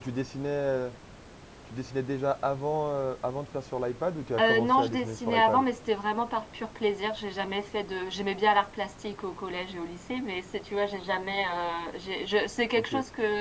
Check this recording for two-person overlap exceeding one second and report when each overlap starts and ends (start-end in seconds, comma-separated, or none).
4.4-5.7